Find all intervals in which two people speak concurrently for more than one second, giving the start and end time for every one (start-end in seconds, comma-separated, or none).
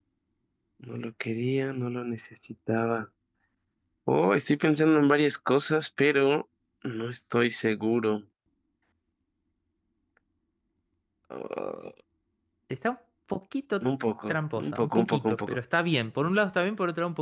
14.3-15.6